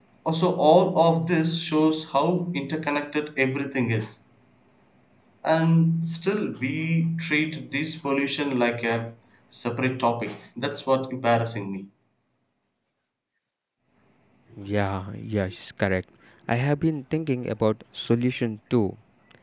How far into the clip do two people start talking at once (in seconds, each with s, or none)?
none